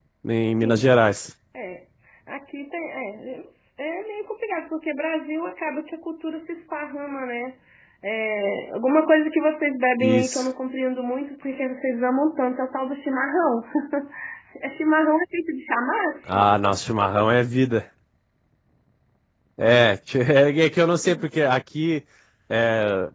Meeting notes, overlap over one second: none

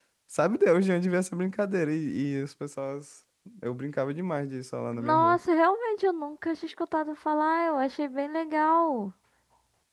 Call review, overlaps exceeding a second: none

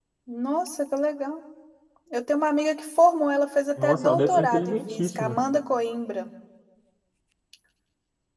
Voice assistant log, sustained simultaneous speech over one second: present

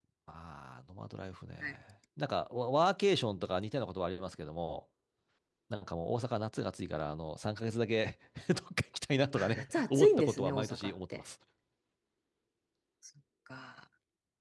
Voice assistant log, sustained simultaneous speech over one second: present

